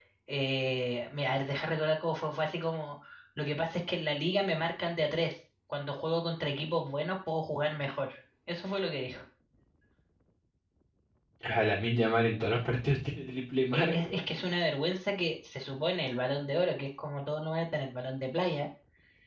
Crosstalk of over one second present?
No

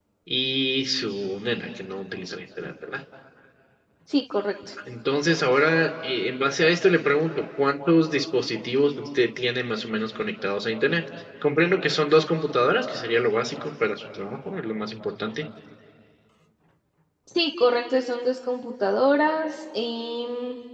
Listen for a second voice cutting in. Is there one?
No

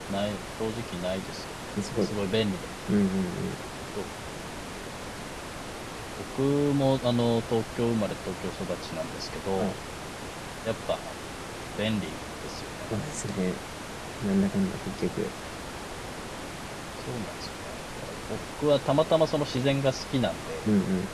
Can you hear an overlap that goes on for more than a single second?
No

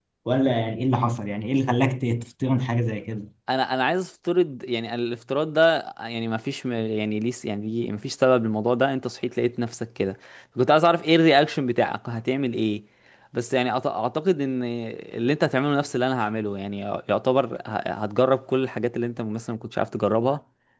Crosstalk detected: No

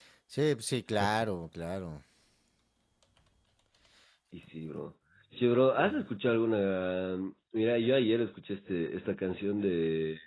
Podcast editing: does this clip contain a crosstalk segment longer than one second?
No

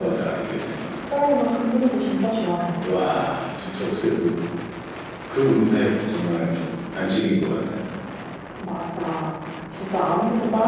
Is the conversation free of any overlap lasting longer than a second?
Yes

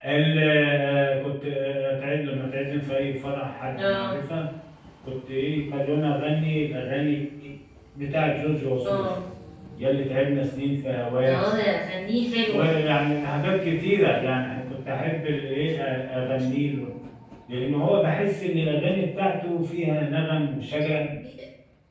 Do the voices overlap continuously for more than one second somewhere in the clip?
No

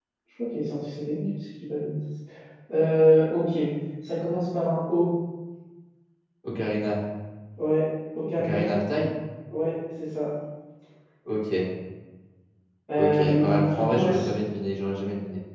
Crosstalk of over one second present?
Yes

